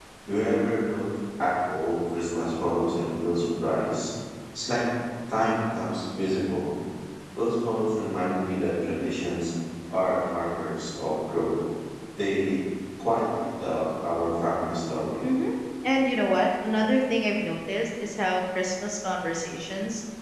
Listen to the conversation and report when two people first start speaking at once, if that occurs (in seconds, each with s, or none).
none